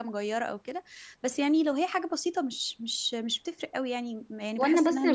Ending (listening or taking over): taking over